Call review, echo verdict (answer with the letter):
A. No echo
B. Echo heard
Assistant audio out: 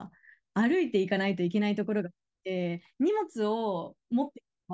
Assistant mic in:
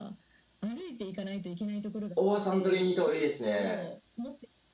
B